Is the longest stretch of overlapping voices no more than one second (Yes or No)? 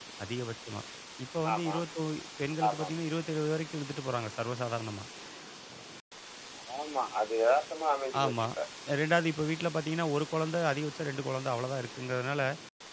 Yes